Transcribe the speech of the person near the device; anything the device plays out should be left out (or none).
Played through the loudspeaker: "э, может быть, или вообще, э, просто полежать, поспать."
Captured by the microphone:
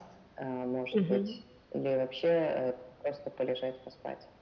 Мгм.